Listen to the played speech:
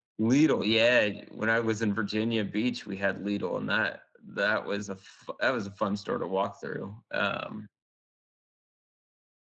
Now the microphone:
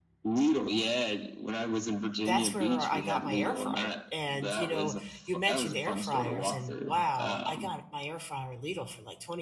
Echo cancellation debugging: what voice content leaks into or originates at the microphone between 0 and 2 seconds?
echo only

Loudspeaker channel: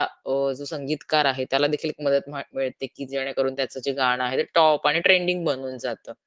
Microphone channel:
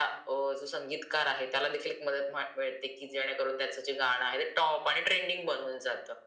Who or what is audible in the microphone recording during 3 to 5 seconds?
echo only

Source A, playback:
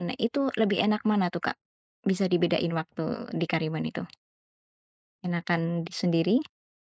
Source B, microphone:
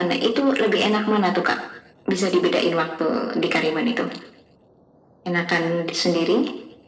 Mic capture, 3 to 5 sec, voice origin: echo only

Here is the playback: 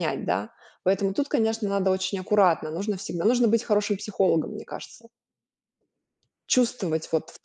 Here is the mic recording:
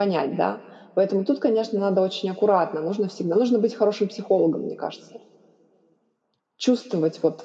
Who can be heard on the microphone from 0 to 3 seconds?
echo only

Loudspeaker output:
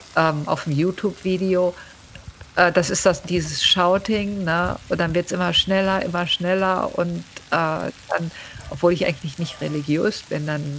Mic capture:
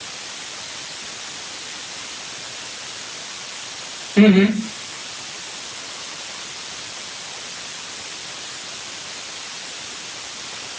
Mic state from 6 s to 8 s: neither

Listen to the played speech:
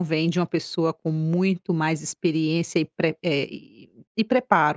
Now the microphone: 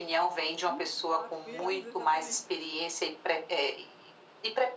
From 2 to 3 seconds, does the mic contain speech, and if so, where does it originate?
both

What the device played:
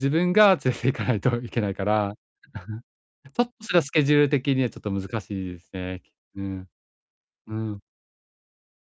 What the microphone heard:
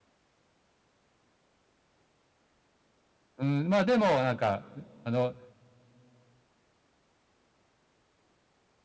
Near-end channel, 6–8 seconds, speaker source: neither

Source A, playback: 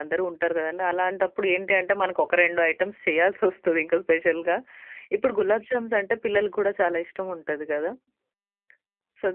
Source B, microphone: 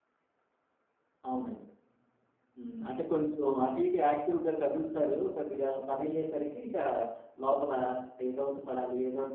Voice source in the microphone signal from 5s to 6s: user only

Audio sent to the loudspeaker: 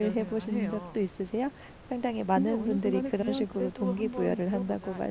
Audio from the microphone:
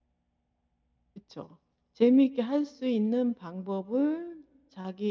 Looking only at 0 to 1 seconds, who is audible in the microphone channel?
neither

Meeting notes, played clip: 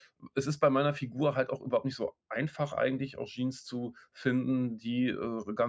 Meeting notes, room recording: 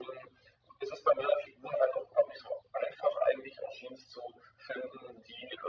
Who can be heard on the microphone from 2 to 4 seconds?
echo only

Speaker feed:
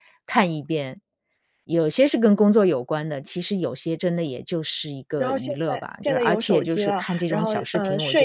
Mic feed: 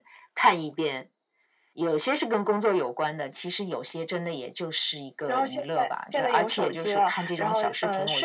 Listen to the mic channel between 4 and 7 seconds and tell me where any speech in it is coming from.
echo only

